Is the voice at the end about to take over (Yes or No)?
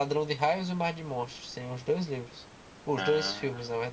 No